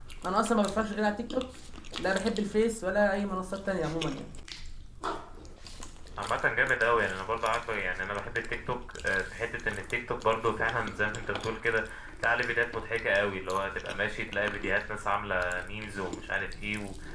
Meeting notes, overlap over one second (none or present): none